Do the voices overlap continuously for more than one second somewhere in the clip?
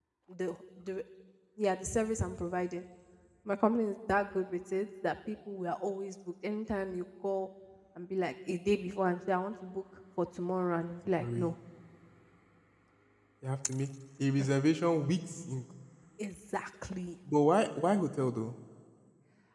No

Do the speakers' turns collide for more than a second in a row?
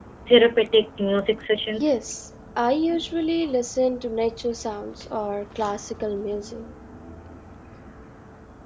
No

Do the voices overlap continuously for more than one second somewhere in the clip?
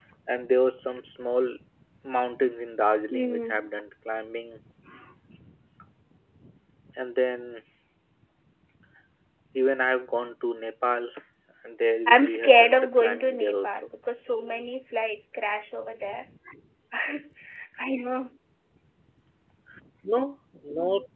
Yes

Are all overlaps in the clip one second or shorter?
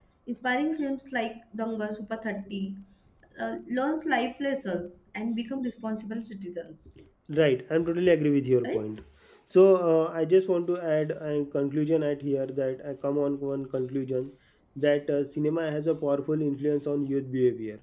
Yes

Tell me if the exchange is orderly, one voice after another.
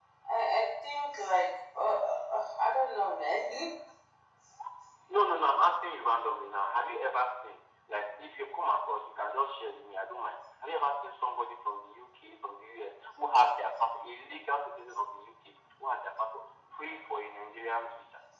Yes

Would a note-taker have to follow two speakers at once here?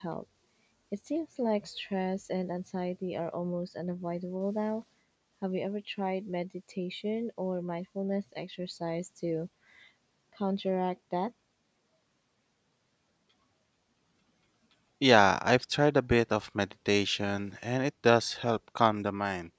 No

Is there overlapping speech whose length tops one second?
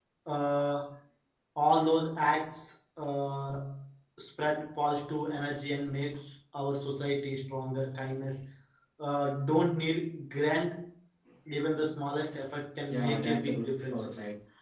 Yes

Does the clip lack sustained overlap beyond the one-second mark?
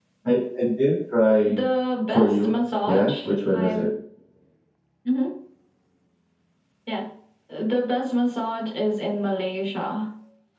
No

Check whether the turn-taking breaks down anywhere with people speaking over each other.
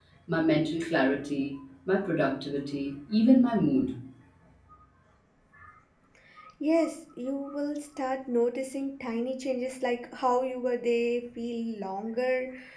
No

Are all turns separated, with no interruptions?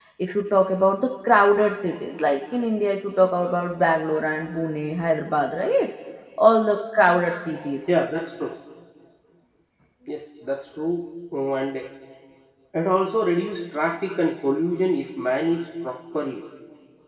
Yes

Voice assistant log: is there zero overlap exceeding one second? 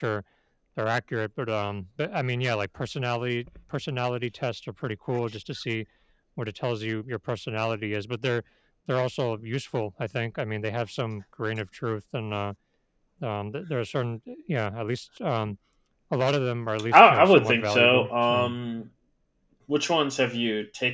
No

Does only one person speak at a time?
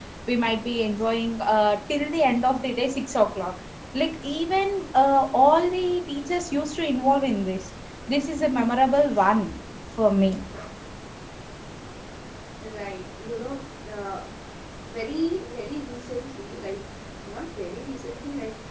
Yes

